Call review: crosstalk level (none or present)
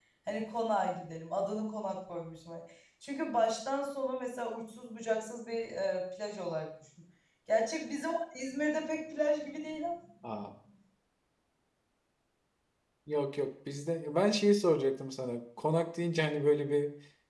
none